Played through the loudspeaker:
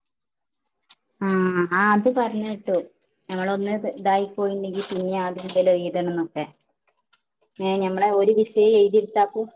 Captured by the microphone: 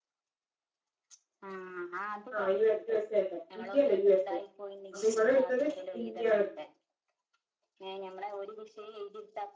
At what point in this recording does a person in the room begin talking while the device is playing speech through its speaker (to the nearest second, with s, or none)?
2 s